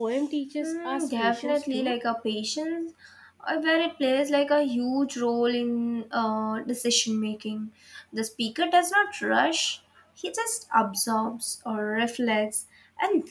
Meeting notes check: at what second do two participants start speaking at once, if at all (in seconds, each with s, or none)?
0.6 s